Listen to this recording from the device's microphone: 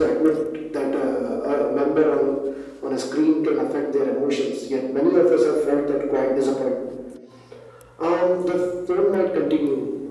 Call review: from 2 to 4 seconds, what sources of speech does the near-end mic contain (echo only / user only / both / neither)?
echo only